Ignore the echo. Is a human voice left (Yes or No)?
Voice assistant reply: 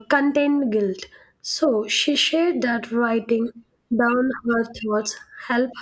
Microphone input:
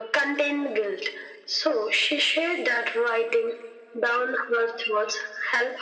No